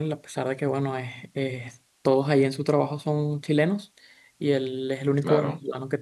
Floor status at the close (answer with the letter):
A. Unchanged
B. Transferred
A